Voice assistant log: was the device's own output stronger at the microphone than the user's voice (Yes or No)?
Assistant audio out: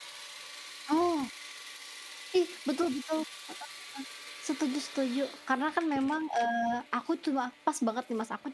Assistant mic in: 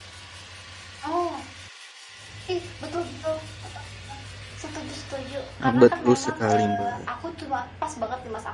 No